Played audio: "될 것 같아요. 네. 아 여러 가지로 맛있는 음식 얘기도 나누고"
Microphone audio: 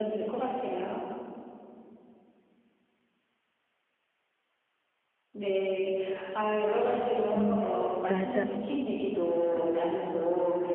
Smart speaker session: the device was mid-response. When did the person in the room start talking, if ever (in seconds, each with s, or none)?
7.3 s